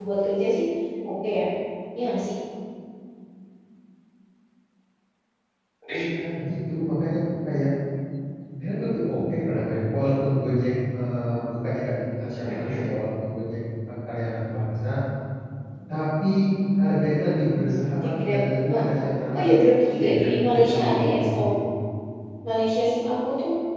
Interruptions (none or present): present